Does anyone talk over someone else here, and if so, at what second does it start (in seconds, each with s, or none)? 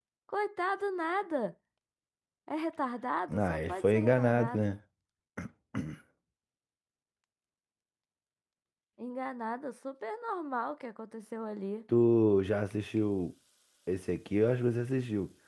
3.3 s